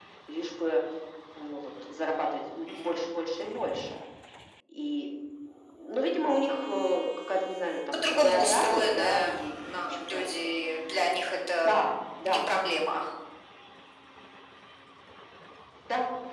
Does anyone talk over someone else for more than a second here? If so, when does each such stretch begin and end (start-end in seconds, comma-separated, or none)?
7.9-10.2